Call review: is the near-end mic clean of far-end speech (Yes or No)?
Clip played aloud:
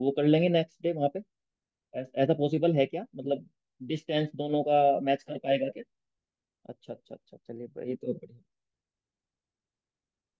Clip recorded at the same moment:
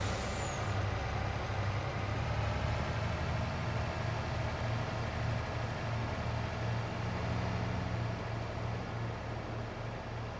Yes